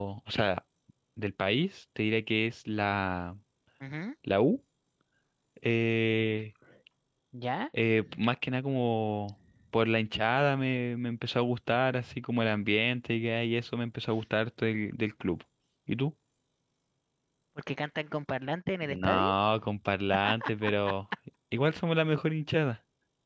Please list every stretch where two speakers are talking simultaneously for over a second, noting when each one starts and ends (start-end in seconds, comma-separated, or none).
none